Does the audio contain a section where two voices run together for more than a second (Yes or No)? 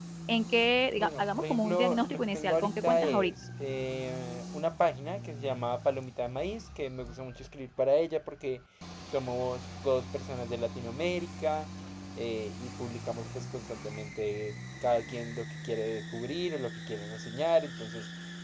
Yes